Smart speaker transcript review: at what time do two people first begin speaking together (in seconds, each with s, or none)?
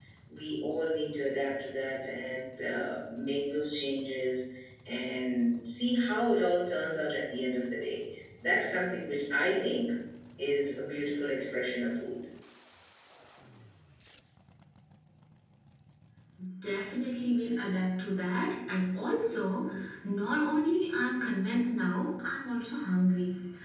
none